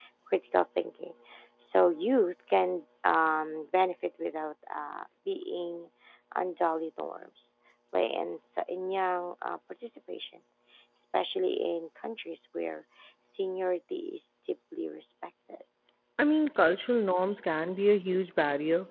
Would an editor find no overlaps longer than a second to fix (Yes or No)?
Yes